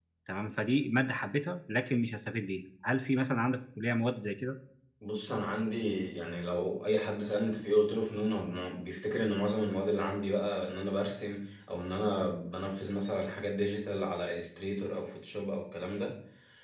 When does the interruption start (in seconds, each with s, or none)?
none